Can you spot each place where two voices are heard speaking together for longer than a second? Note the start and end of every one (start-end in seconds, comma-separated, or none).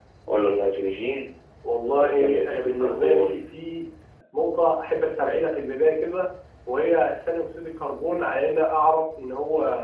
1.9-3.4